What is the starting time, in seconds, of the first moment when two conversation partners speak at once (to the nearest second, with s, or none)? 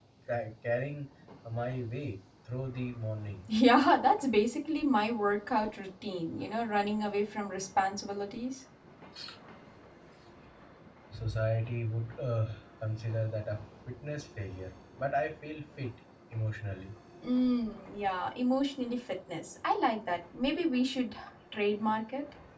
none